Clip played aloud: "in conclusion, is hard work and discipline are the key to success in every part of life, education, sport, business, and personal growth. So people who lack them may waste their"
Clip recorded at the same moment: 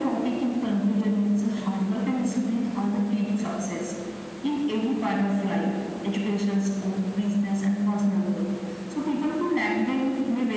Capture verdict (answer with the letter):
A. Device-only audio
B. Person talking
A